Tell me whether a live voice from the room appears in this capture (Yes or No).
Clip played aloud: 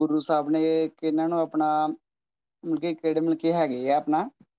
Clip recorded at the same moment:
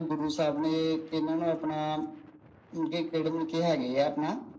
No